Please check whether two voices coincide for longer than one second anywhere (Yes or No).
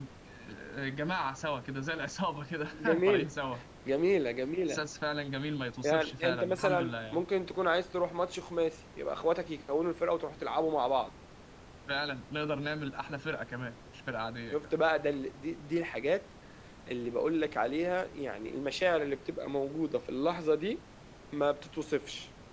Yes